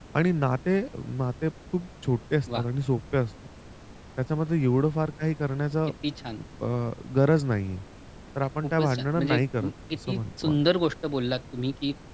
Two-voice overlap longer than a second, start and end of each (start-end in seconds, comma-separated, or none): 8.6-10.6